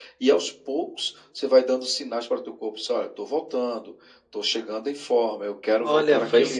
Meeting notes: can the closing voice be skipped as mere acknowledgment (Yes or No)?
No